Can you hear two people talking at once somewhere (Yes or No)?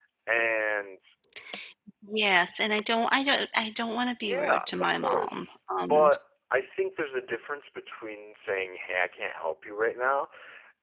Yes